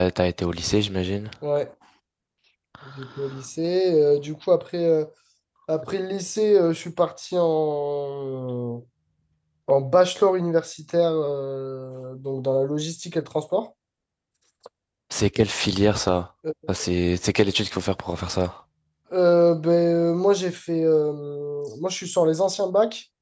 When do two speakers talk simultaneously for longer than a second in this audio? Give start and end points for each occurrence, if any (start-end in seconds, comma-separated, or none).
none